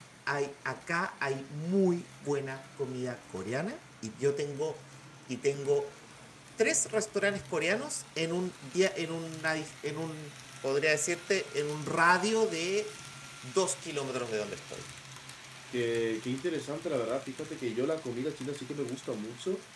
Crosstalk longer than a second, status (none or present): none